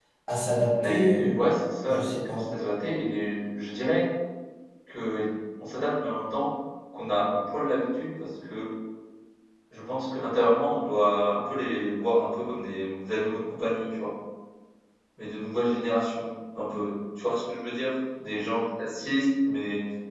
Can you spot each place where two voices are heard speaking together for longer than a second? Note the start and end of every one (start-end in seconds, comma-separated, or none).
0.8-2.4